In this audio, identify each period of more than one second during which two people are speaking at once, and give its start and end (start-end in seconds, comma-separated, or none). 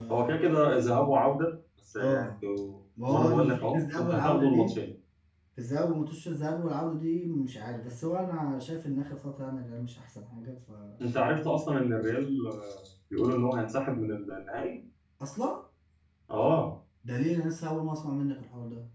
3.1-4.7